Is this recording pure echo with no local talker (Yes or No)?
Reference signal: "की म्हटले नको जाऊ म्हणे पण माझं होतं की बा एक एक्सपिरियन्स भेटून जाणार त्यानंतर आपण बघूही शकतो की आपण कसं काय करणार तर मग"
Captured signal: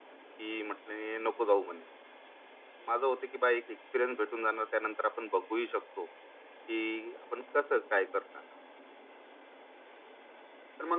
Yes